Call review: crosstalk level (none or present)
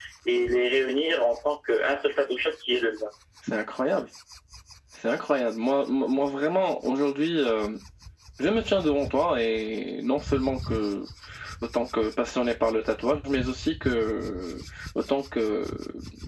none